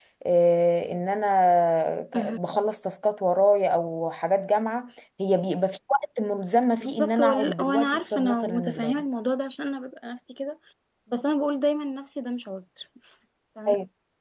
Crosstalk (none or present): present